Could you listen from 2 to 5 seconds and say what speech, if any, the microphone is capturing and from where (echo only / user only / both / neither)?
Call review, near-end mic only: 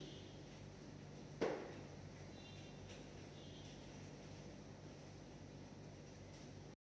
neither